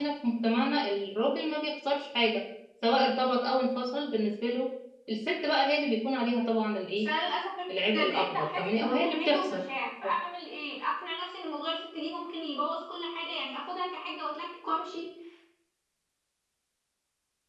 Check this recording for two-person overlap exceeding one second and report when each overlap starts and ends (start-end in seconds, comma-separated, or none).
7.9-9.6